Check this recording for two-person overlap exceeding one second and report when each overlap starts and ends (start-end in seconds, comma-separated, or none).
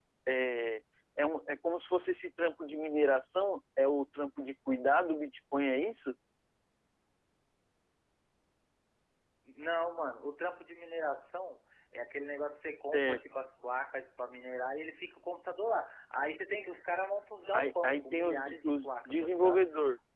17.5-19.6